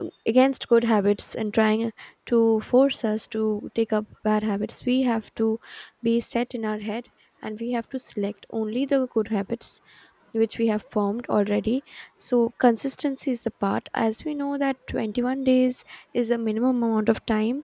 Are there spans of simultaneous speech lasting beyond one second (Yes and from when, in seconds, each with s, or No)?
No